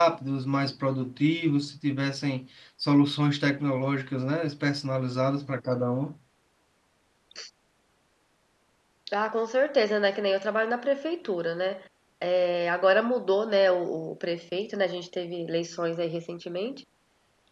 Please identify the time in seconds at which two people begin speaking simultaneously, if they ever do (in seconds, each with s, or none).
none